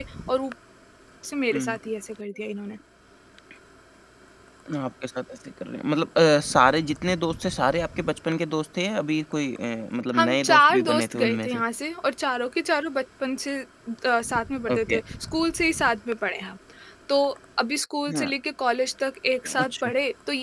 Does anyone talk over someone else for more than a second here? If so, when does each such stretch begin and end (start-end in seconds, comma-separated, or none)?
10.2-11.6